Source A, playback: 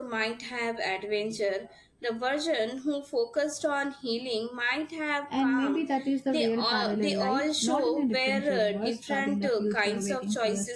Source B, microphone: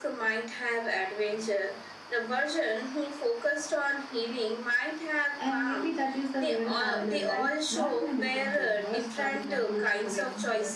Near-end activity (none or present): none